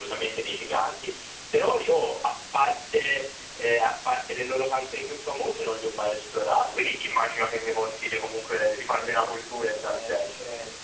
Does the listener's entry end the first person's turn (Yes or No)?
Yes